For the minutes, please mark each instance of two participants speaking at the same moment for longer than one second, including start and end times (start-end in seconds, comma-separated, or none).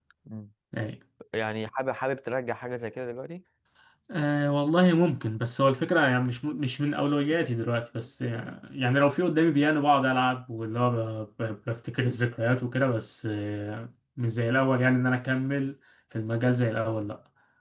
none